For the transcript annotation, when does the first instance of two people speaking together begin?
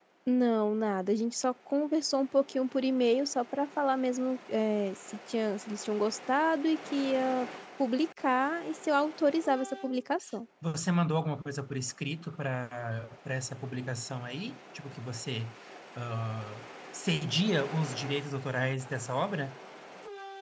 none

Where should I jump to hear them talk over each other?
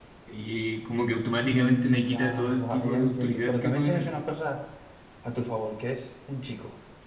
1.4 s

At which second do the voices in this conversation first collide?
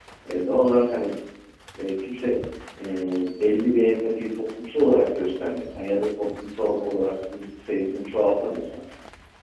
none

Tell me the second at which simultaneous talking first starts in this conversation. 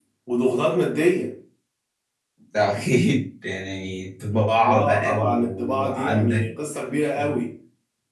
4.3 s

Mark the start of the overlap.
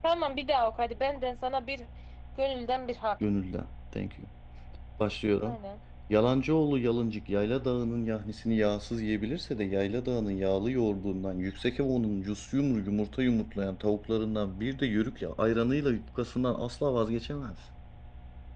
none

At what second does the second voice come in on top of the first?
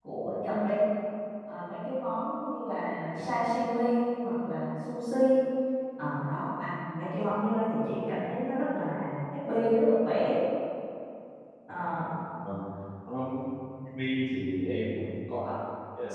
none

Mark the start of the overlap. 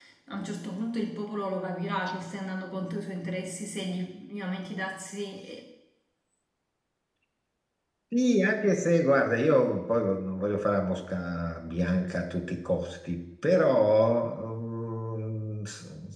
none

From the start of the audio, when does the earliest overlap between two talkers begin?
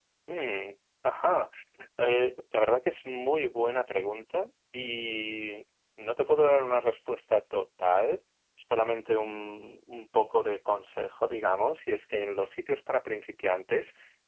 none

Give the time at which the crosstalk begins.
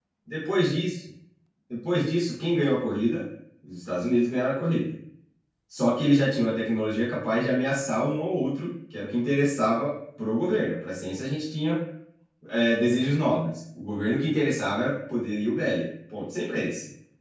none

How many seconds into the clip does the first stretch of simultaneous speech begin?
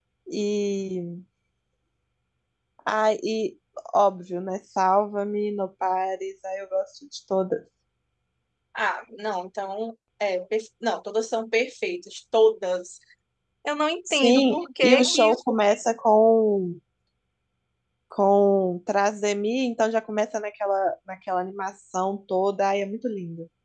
14.1 s

